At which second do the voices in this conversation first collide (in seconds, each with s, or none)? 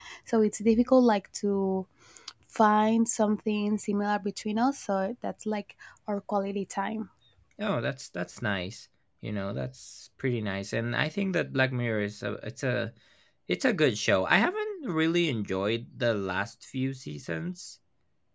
none